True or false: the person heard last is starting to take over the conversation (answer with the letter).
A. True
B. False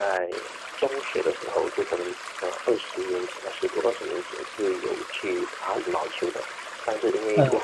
B